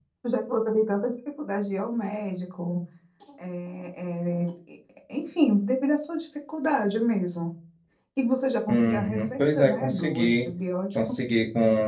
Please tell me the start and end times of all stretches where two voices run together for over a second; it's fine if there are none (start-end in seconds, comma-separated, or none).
8.7-10.5